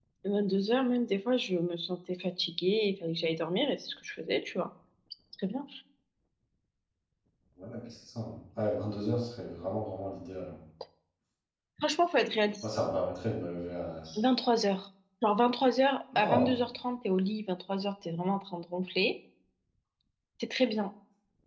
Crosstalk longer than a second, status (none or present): none